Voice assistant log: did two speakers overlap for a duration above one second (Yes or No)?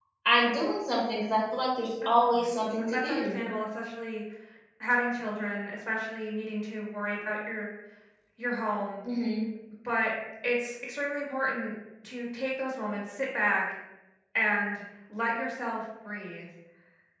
Yes